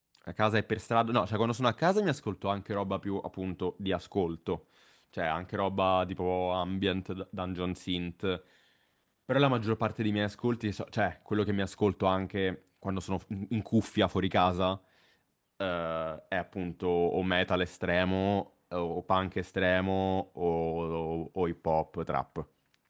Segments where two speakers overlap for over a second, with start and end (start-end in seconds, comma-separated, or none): none